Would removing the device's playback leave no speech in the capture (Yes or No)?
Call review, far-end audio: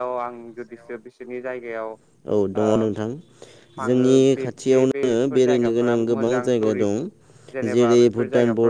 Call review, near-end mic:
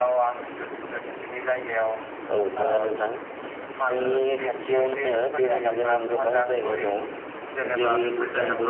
Yes